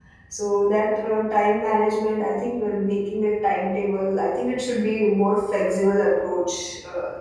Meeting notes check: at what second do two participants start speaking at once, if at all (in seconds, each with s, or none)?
none